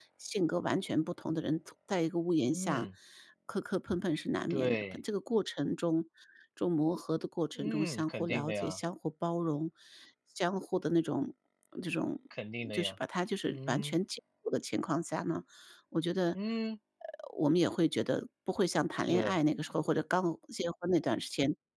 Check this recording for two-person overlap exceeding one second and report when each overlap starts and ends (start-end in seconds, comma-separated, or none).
7.6-8.8